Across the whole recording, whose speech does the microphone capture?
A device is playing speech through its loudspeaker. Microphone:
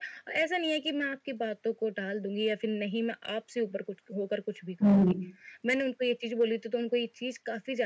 both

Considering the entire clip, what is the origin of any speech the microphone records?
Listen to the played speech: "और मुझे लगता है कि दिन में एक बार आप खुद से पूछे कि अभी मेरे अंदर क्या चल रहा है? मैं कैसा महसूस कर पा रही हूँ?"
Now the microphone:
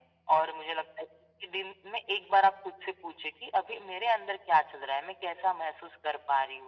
echo only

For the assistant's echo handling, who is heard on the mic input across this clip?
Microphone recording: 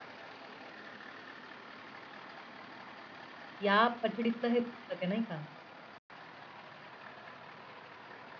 user only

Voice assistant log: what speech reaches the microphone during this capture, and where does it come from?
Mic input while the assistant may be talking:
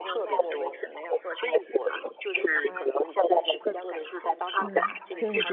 both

